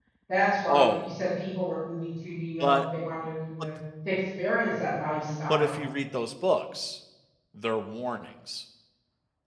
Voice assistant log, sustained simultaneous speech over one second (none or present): none